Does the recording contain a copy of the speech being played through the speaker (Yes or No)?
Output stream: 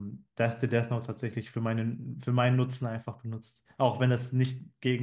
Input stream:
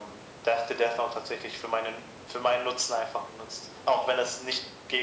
Yes